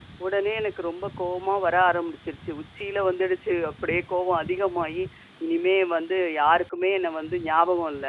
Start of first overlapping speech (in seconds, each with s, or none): none